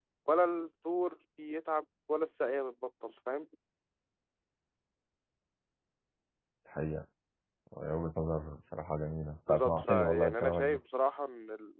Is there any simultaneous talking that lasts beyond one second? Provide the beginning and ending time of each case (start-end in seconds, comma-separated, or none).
9.5-10.8